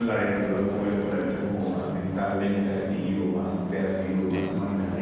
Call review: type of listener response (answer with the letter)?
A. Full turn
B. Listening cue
A